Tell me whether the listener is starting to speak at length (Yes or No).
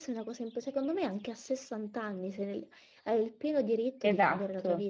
No